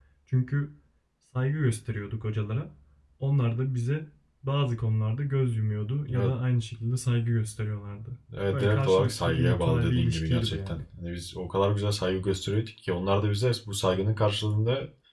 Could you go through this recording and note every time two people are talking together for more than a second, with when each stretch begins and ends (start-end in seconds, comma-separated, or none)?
8.5-10.8